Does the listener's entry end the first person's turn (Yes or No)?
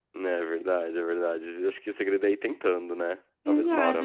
Yes